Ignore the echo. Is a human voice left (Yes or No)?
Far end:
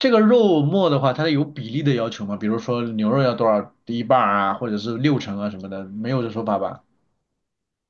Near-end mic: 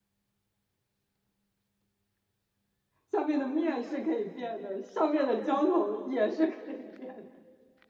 Yes